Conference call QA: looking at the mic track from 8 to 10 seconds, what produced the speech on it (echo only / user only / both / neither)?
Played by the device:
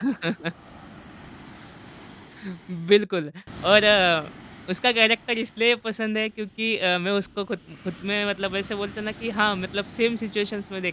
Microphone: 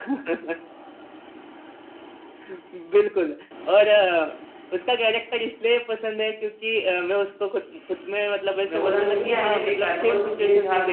both